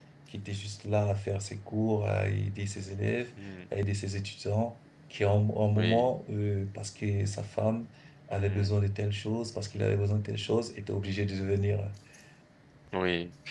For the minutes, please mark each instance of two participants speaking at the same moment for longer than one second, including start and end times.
none

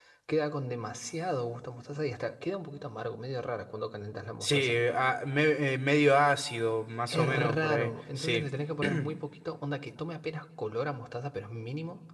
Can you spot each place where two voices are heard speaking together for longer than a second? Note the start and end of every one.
7.1-8.4

